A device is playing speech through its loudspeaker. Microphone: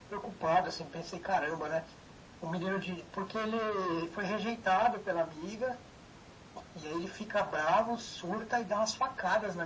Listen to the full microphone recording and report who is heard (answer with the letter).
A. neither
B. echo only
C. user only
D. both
B